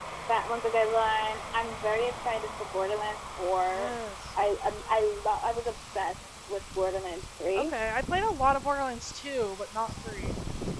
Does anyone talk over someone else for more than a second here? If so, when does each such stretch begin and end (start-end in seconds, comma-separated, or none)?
none